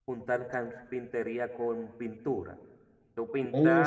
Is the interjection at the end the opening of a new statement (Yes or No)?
Yes